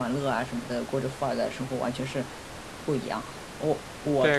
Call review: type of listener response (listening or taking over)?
taking over